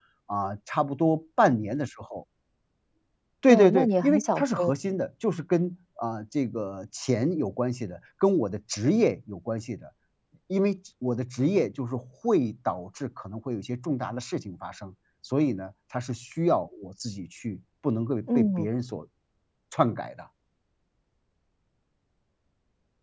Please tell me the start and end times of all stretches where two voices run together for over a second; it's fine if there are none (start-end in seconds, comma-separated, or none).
3.5-4.7